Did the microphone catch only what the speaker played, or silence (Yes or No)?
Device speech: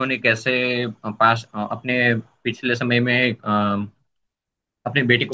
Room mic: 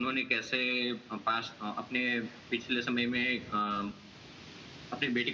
Yes